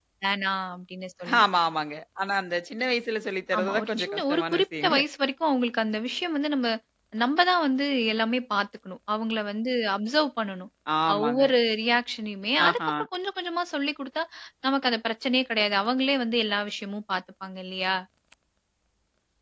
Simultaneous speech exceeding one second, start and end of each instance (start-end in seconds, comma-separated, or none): 3.6-5.0